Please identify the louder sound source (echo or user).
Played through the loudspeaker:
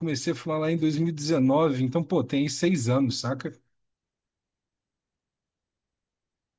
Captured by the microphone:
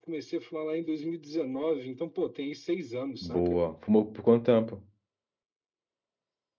user